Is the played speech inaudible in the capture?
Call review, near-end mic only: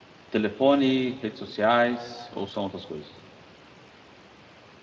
Yes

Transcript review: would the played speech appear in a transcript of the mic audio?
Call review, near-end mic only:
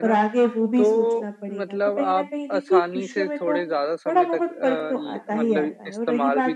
Yes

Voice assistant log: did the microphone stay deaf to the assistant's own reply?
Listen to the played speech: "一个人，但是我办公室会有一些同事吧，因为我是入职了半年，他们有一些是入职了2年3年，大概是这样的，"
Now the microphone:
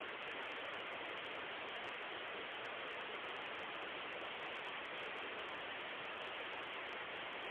Yes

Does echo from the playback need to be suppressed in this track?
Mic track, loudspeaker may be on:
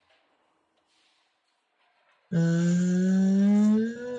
No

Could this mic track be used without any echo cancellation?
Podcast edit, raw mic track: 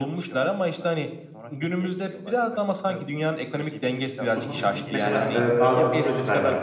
No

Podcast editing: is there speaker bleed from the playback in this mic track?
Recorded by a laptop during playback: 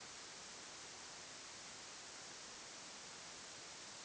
No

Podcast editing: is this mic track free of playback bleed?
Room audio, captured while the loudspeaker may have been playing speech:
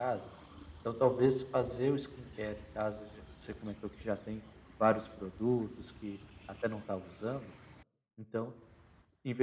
No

